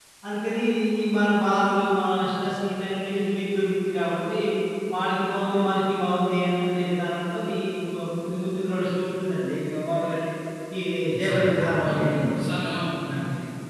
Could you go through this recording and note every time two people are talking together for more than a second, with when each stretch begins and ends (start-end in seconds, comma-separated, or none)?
11.2-12.5